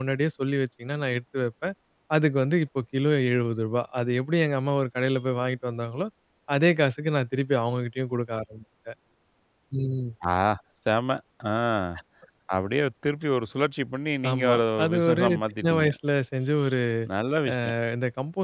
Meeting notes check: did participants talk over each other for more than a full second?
Yes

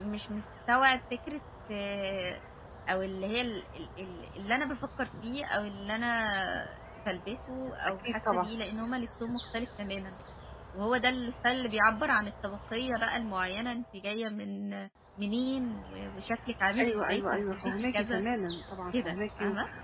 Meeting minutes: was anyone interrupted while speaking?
Yes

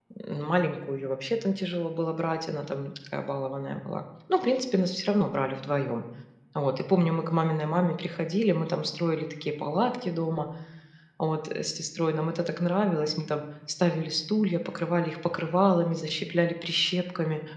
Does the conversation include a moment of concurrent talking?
No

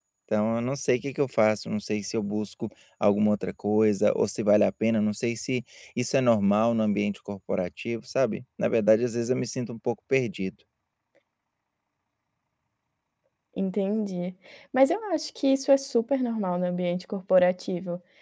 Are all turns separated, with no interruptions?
Yes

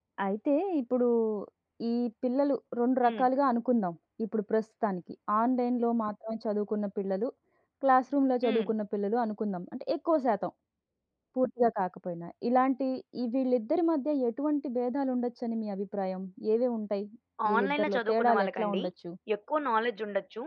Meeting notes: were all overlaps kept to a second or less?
No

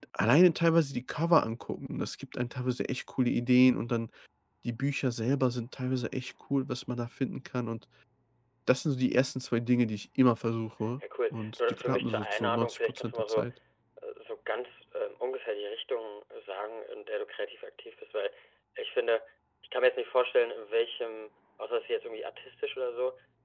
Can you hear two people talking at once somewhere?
Yes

